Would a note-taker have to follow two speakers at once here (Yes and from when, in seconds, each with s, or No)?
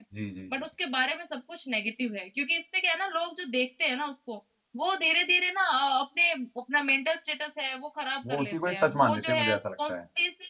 Yes, from 8.2 s